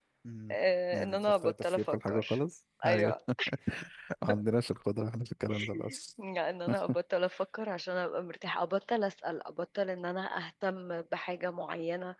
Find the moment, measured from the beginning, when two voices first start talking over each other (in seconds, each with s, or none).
0.9 s